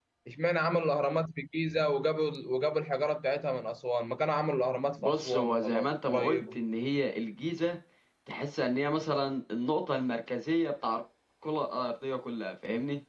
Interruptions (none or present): present